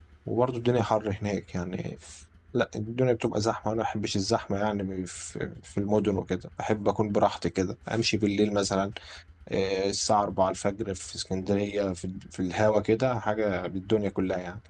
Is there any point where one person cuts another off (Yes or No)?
No